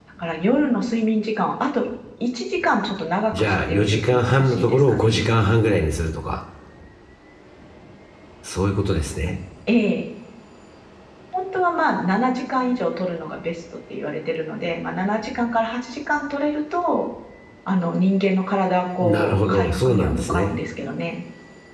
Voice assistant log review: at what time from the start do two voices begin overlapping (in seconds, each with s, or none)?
3.4 s